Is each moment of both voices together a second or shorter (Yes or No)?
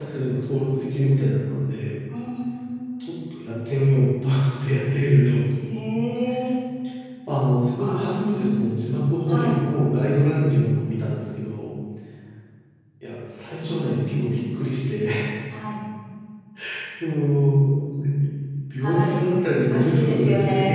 No